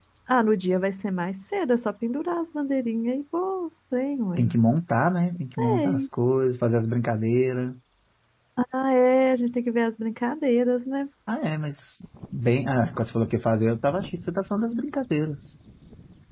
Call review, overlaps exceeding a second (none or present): none